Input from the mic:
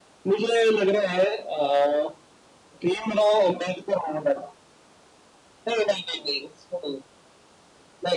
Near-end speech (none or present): none